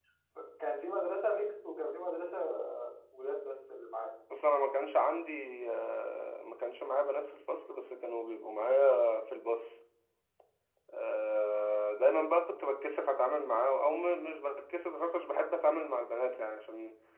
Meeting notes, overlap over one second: none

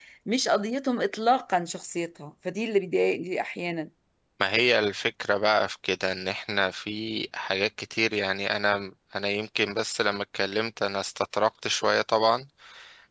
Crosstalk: none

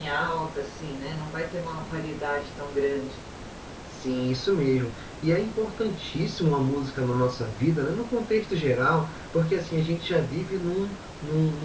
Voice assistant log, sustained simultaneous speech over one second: none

